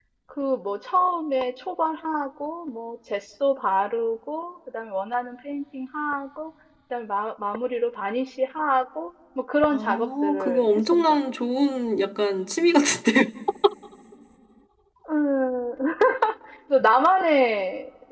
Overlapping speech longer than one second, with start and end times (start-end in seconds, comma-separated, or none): 9.7-11.2